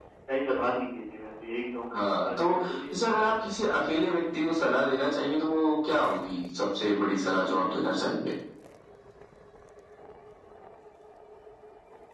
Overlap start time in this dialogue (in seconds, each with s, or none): 1.9 s